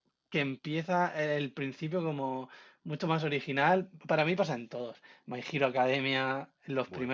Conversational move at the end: taking over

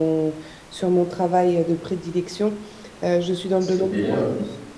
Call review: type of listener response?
listening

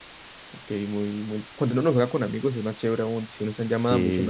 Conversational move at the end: taking over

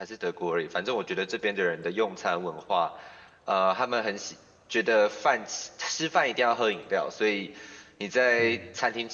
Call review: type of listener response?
listening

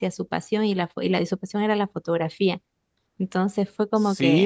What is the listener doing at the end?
taking over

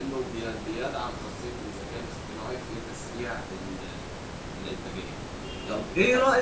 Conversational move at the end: taking over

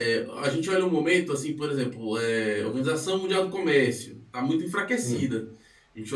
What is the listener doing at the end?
listening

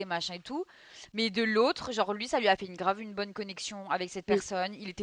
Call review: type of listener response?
listening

